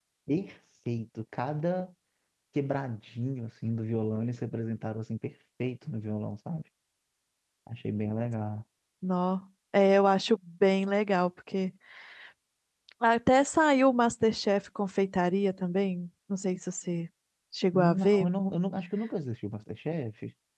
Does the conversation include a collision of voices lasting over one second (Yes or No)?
No